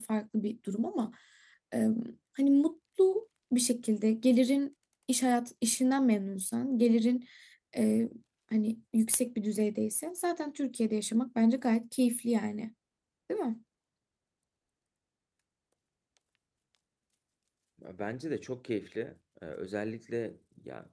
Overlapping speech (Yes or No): No